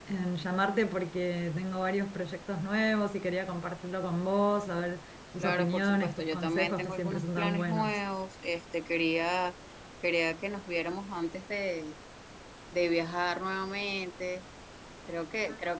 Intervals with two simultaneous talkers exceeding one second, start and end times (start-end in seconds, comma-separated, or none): 5.4-8.0